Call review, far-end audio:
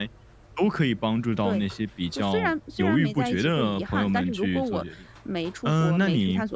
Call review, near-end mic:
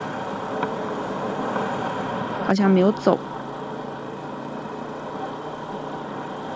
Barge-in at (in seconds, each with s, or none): 2.4 s